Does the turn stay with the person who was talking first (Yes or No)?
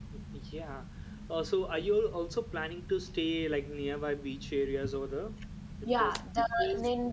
No